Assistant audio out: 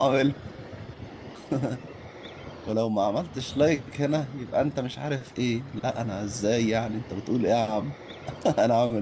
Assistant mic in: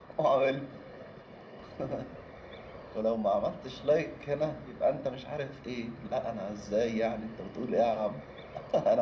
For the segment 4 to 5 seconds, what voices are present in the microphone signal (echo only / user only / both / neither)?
echo only